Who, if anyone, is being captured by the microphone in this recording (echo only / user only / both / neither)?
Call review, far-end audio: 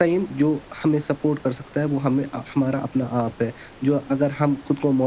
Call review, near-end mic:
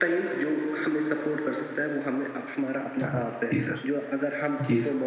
both